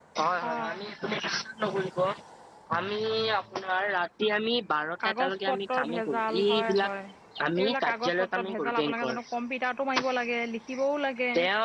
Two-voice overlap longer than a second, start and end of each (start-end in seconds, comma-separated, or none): 5.0-6.9, 7.6-9.2